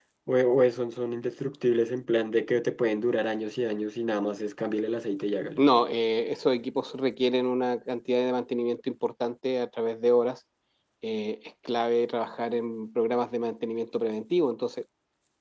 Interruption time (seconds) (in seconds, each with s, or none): none